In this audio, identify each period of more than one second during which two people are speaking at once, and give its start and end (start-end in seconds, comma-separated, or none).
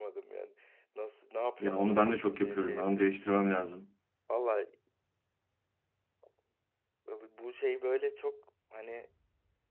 1.6-3.1